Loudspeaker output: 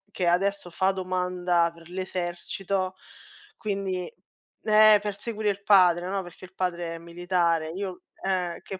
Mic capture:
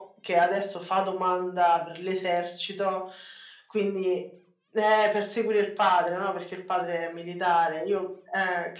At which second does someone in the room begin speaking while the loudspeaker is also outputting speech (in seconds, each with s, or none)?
none